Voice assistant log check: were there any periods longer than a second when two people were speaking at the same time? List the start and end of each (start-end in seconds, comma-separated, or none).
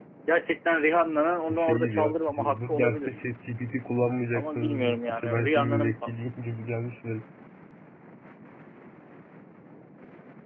1.5-3.1, 4.3-5.9